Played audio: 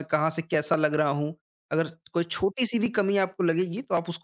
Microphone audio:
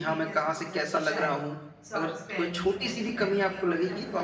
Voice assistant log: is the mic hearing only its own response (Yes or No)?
No